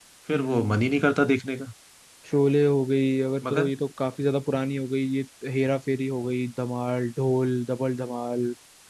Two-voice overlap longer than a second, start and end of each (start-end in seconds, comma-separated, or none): none